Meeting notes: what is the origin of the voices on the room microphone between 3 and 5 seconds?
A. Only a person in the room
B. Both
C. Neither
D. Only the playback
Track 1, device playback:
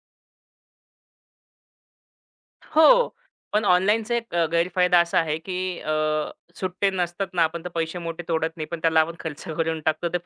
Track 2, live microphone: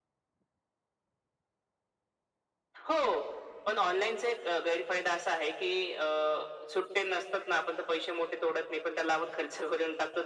D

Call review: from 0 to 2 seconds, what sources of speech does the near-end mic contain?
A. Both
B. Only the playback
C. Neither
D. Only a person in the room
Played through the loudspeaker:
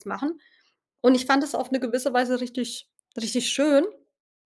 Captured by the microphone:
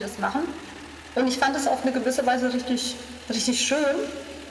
B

